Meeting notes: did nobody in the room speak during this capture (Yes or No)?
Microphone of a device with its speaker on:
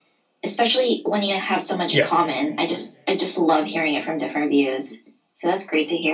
No